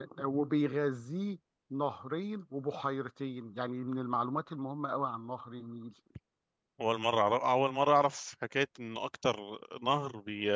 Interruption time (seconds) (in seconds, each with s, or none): none